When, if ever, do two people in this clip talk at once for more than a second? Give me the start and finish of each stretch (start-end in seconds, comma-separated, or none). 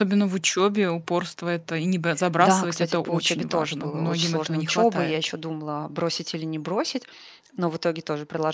2.4-5.2